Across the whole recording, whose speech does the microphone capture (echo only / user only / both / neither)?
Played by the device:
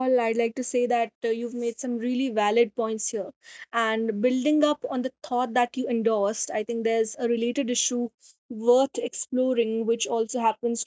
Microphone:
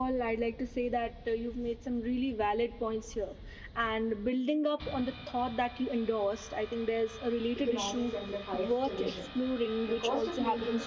both